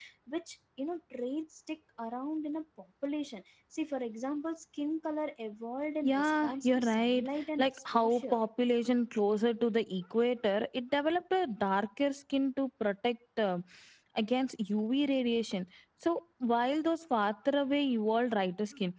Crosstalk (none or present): present